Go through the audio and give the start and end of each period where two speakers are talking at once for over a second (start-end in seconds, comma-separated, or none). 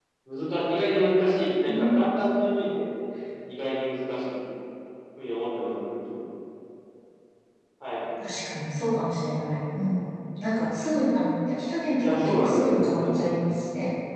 12.0-13.2